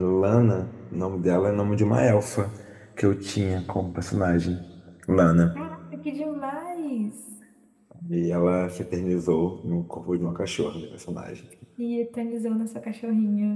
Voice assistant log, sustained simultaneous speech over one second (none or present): none